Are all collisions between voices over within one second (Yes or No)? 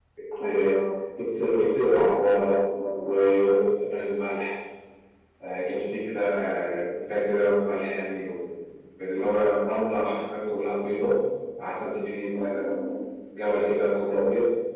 Yes